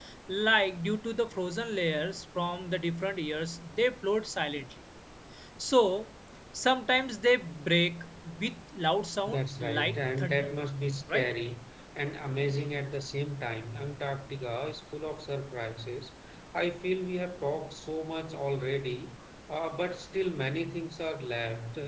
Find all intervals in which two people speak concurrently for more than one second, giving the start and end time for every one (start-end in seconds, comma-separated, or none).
9.3-10.6